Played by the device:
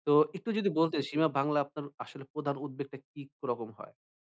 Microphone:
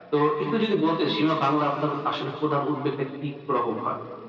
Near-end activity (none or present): none